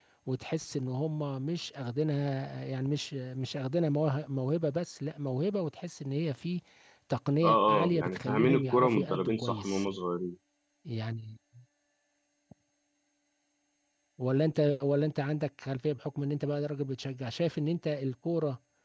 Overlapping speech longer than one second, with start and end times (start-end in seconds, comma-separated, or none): 7.4-9.9